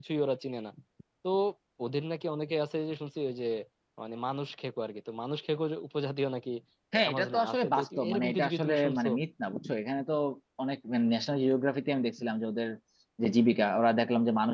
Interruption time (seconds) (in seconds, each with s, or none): 7.0 s